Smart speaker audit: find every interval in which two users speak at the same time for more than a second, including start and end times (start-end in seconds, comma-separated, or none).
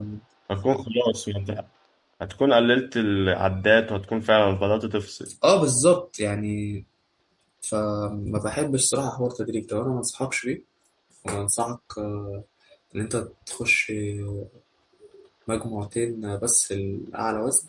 none